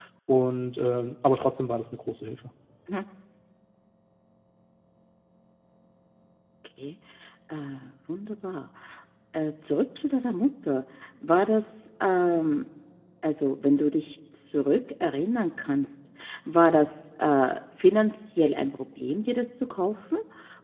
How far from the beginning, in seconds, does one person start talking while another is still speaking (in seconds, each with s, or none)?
none